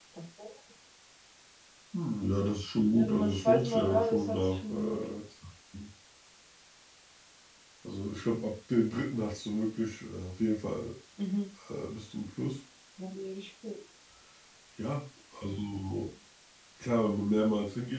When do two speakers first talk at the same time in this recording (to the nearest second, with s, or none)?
3 s